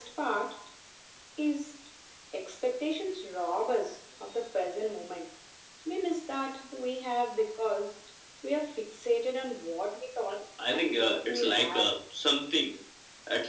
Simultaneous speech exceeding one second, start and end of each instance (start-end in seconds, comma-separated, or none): 10.7-12.0